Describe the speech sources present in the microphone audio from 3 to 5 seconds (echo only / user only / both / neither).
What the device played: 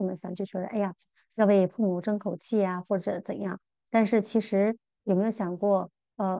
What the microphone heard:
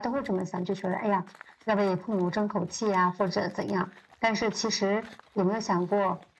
echo only